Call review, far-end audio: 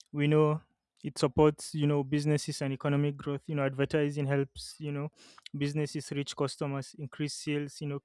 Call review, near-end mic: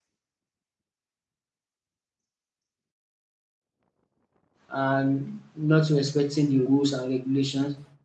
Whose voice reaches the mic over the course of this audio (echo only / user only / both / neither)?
user only